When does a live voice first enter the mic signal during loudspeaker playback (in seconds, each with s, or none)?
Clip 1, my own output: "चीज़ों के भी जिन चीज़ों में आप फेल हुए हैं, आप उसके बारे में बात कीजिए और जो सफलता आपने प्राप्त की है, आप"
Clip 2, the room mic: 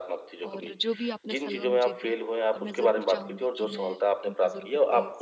0.5 s